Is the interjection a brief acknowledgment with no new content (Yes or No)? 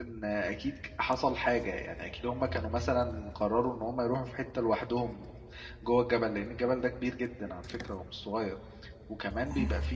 Yes